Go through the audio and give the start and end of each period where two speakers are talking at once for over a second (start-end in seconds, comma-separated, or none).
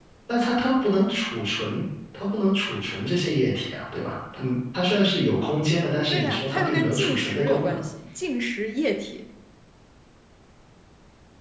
6.1-7.8